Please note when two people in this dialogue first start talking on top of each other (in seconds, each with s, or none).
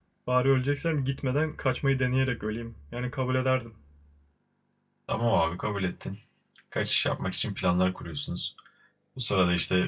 none